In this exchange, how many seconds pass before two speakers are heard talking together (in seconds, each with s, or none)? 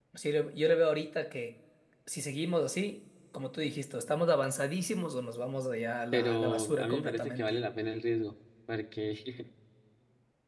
6.1 s